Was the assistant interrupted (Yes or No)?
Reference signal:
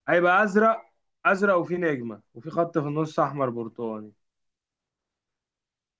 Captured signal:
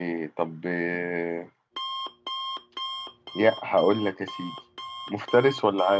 Yes